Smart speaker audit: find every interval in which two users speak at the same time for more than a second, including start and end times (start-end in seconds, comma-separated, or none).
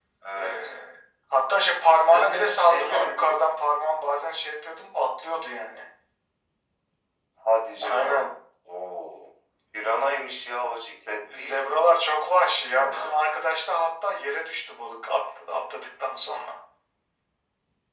1.9-3.3